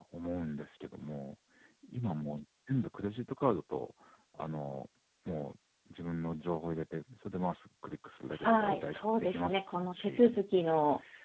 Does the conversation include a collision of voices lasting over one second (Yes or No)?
Yes